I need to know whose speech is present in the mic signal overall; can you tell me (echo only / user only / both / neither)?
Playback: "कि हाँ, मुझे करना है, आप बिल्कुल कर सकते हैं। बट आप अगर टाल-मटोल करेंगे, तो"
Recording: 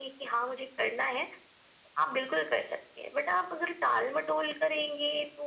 echo only